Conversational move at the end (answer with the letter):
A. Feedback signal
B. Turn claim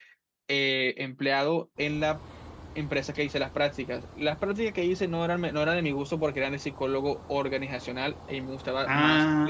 B